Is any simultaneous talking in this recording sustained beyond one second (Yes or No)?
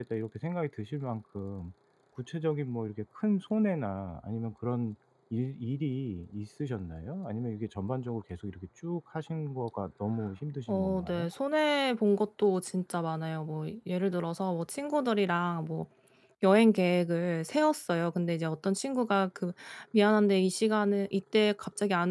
No